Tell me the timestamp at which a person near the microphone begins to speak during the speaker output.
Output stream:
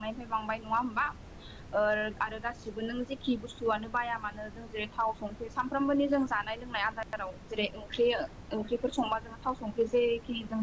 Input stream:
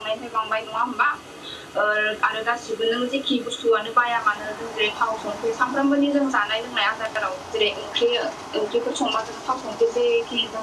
none

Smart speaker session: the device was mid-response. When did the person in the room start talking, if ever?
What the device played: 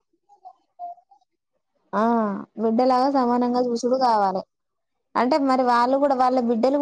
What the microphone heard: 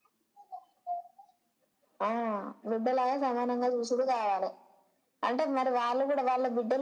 none

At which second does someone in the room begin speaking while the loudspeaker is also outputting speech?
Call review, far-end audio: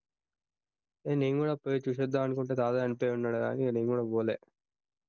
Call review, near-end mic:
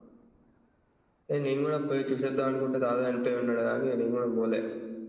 none

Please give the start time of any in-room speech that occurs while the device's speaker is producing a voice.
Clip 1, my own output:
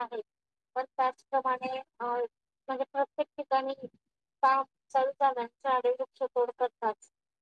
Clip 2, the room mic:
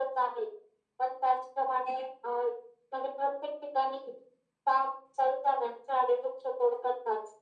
none

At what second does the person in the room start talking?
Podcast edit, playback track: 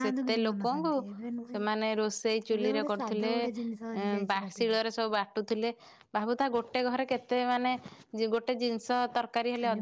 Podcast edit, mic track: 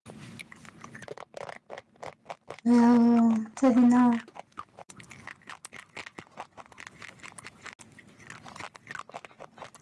2.7 s

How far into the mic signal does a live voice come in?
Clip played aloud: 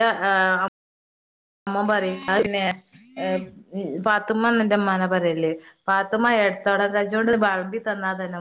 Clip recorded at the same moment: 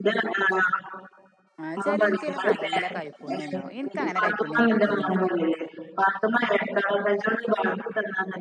1.7 s

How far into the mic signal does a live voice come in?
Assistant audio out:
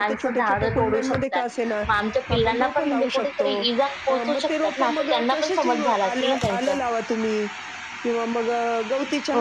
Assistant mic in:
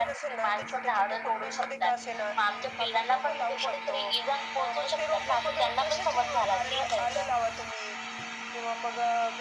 none

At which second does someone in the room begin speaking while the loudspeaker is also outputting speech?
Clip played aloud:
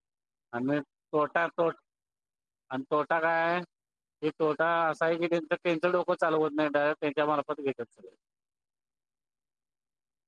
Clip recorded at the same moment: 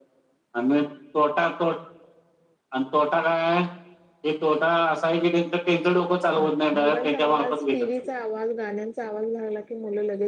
6.4 s

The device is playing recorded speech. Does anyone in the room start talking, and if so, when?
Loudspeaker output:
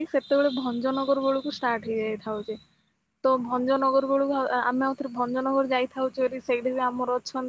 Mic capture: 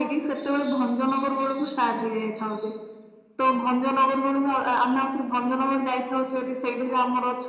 none

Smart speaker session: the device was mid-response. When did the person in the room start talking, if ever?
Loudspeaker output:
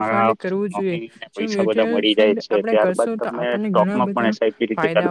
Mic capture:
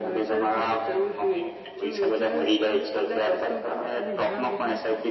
none

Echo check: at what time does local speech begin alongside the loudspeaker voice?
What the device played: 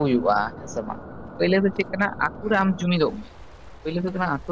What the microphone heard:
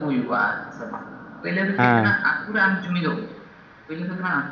1.8 s

